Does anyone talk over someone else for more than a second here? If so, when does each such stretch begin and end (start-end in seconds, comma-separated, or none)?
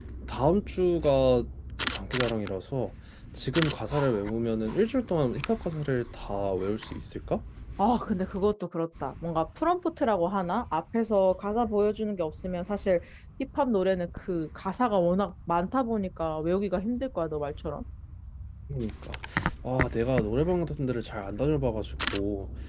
none